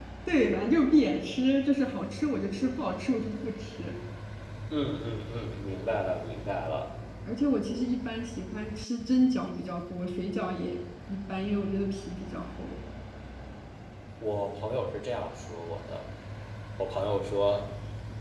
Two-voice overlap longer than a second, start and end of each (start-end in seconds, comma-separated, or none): none